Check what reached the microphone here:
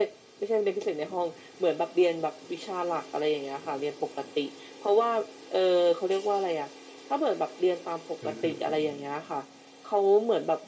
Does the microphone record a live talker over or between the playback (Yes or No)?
Yes